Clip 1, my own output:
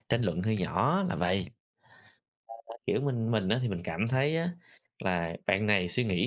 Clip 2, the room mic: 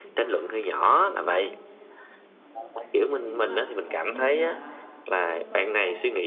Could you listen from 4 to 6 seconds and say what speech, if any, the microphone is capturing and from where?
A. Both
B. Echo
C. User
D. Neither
A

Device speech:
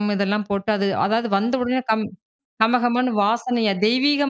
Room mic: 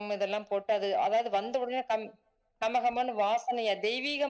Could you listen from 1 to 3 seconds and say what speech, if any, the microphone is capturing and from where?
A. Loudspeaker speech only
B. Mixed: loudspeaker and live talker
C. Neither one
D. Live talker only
A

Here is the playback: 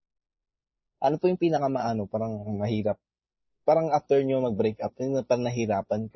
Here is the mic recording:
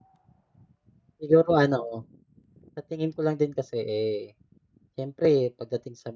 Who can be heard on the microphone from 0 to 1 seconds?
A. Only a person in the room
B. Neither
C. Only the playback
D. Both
B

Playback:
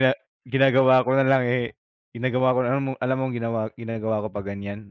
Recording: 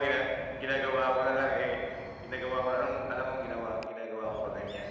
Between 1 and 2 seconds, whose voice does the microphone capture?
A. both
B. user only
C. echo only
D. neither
C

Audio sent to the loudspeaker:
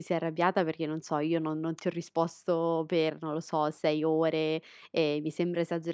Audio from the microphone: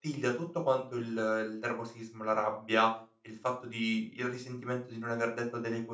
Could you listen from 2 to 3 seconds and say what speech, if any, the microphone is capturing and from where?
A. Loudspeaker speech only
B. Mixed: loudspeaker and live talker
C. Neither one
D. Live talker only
D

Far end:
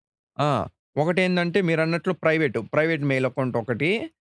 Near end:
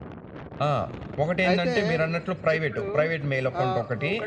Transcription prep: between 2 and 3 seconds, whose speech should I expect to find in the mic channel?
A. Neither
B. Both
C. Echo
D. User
B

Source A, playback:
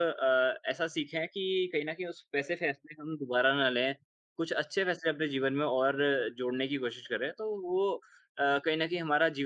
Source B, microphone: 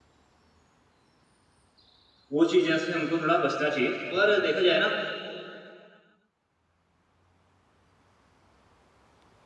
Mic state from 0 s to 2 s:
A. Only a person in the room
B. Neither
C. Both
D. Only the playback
B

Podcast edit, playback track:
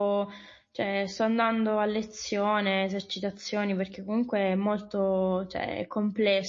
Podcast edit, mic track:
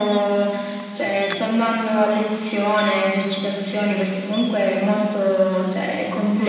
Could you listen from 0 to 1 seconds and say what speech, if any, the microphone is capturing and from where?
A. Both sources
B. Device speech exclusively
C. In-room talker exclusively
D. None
B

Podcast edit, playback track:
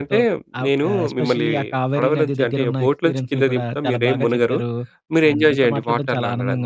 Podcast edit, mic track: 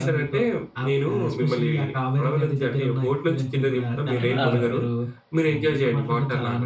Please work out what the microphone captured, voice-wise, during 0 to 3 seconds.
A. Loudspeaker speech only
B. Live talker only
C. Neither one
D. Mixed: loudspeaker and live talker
A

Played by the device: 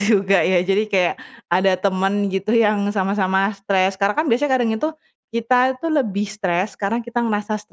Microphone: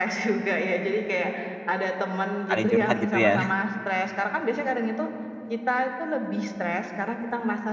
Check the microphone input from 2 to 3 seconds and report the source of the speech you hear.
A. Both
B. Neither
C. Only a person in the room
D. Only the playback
A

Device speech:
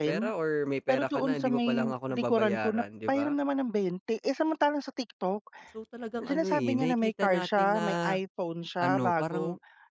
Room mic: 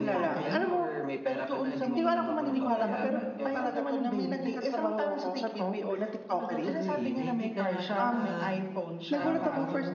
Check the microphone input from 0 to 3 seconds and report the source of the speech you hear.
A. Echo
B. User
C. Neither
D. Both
D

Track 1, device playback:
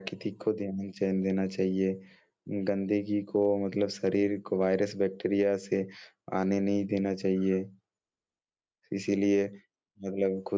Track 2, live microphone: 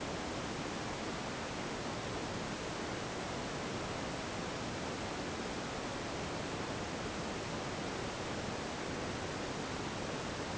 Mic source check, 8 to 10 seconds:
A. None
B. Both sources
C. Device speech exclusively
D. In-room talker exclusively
A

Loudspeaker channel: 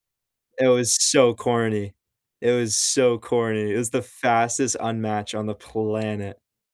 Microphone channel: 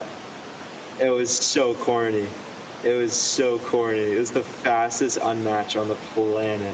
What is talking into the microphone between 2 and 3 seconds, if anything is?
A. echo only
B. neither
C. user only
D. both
A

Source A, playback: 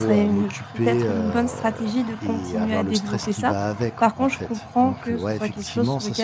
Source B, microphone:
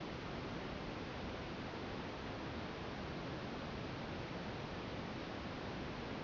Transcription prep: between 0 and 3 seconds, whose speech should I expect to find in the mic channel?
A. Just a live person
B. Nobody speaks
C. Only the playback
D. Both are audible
B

